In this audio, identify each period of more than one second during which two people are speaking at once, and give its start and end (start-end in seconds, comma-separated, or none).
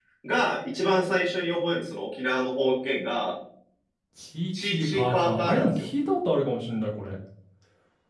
4.6-5.9